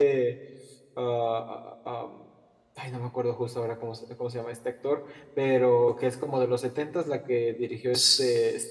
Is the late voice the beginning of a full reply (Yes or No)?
Yes